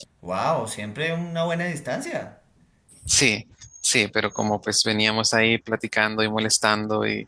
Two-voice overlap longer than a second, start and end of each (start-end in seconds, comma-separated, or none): none